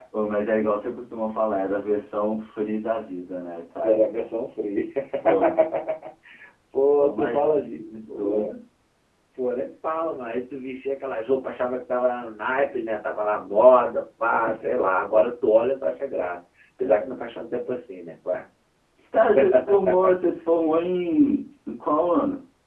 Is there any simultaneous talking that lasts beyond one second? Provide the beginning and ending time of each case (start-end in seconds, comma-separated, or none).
7.0-8.5